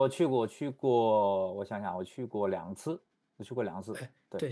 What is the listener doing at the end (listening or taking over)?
taking over